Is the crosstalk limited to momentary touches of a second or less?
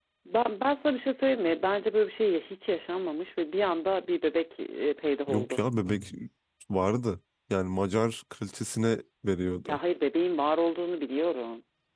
Yes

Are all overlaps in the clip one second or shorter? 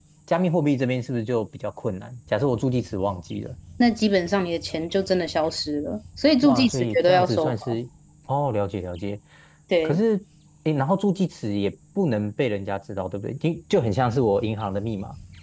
No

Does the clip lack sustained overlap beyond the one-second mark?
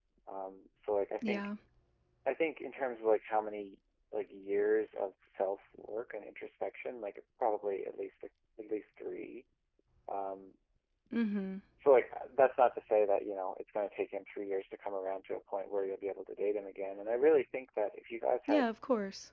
Yes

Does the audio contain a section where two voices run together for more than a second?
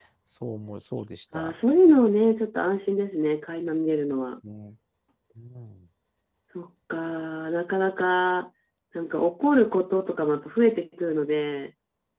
No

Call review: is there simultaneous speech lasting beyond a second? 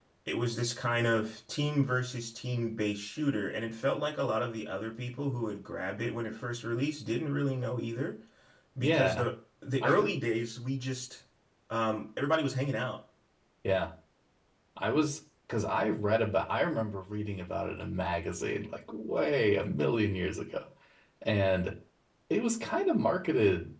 No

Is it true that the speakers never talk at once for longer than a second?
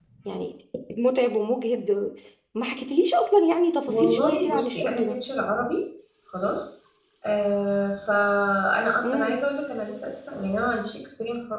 No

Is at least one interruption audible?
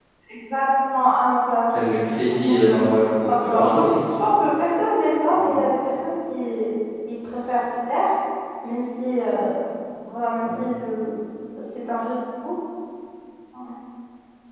Yes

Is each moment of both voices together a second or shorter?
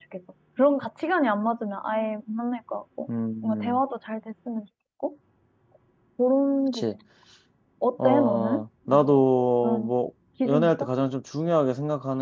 No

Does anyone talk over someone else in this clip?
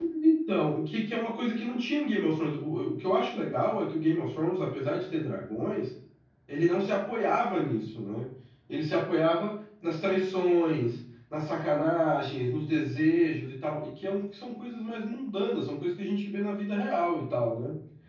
No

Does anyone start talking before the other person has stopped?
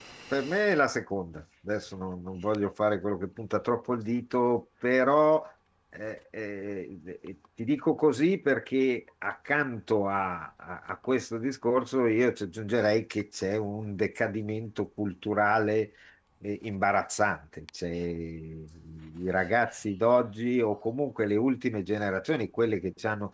No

